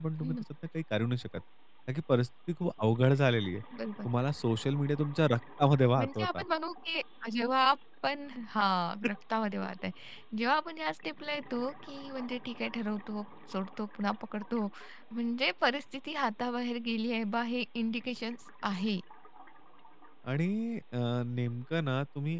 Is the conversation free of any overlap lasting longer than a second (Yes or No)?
Yes